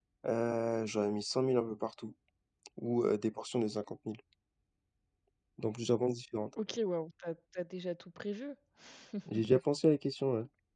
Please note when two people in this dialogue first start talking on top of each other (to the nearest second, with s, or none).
none